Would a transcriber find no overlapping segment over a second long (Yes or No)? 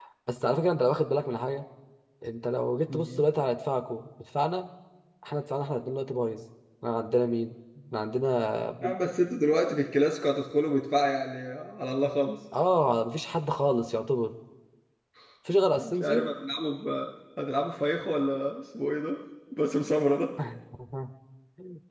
Yes